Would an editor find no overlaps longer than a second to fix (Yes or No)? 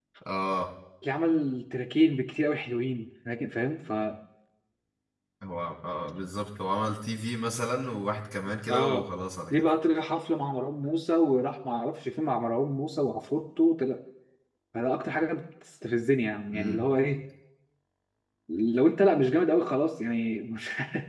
Yes